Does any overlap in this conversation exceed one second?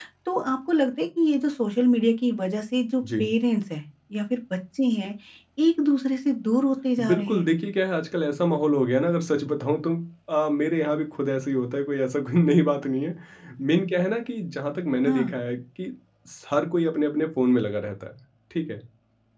No

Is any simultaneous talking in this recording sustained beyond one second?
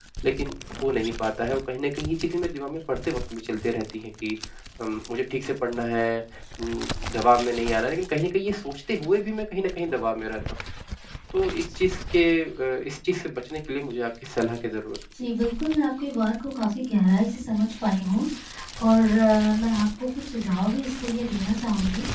No

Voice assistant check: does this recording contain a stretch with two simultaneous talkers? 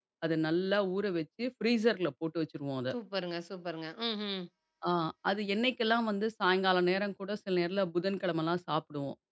No

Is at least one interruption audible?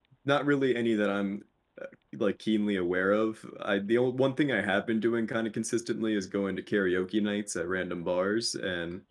No

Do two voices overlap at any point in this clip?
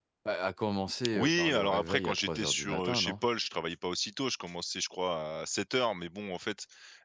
Yes, from 1.1 s

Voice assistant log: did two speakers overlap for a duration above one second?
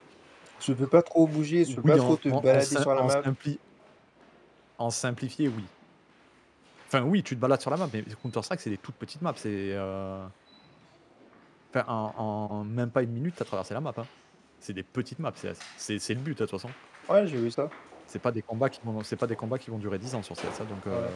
Yes, from 1.6 s

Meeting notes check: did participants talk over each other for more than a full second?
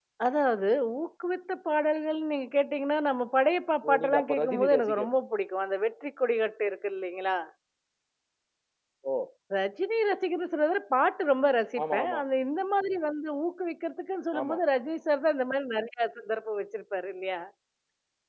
Yes, from 3.9 s

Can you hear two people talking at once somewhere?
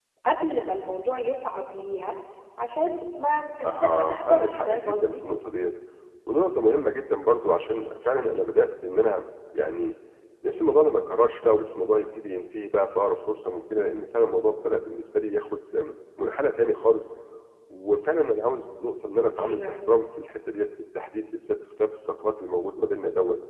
Yes, from 3.6 s

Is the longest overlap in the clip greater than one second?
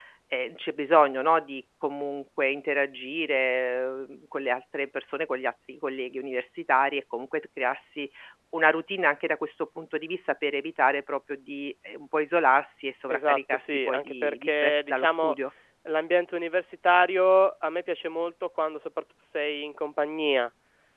Yes, from 13.1 s

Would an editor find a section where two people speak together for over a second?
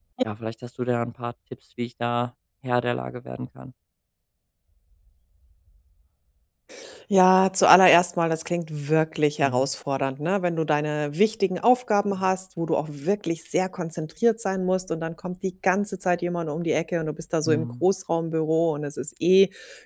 No

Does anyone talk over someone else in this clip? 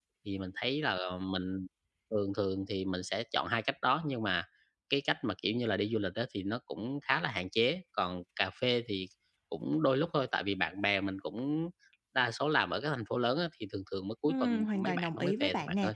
Yes, from 14.3 s

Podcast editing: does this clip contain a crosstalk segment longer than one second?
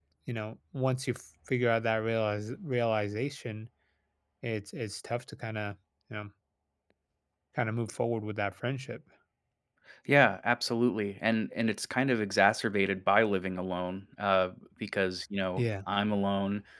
No

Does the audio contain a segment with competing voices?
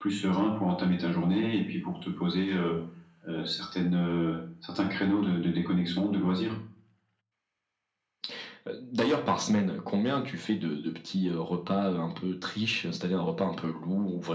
No

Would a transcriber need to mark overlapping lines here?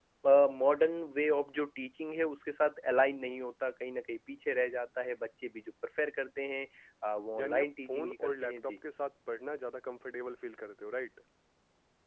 Yes, from 7.4 s

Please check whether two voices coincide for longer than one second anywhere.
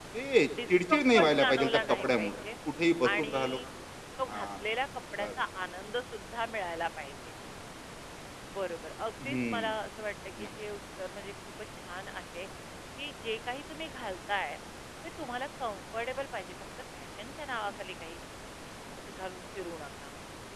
Yes, from 0.7 s

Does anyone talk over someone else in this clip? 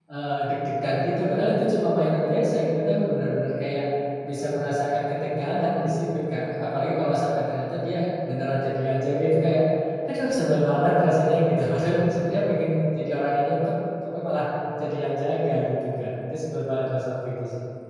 No

